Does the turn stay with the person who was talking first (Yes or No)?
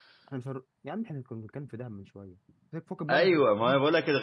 No